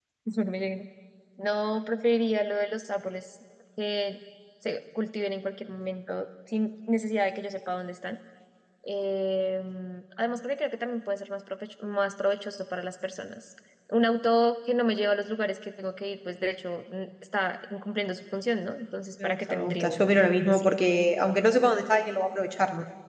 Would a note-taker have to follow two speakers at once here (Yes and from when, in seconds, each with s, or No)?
Yes, from 19.2 s